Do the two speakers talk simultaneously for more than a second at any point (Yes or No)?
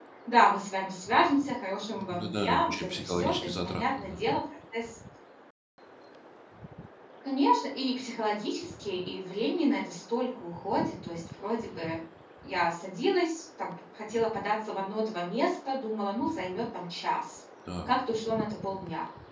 Yes